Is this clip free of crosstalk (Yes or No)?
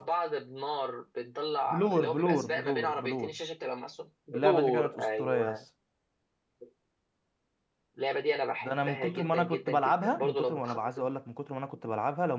No